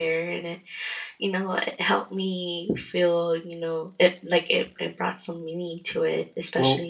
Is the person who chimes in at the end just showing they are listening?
No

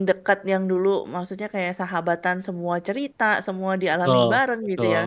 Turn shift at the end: Yes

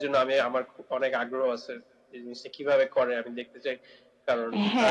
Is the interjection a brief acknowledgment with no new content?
No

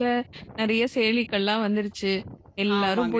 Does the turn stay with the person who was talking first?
Yes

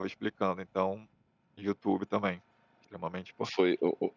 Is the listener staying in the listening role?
No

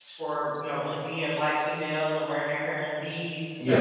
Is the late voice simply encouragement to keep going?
Yes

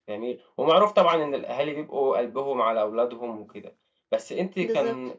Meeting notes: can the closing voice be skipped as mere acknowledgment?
Yes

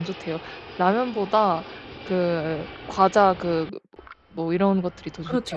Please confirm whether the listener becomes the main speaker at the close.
Yes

